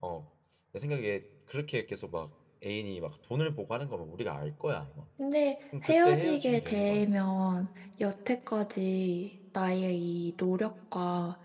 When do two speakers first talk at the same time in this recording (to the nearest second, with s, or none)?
6 s